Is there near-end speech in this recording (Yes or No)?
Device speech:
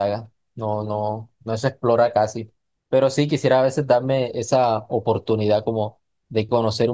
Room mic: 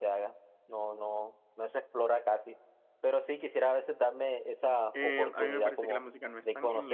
Yes